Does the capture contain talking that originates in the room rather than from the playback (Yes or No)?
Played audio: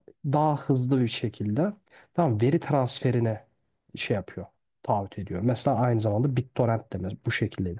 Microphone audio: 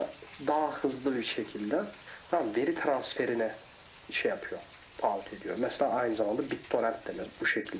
No